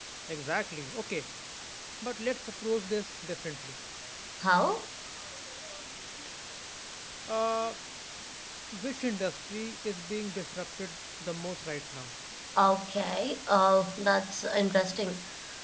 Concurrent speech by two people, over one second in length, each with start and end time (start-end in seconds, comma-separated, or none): none